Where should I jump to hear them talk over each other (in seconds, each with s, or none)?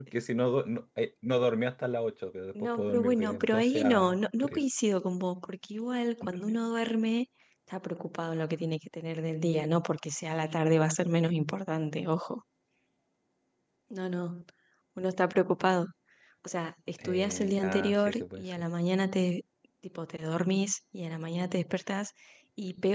2.6 s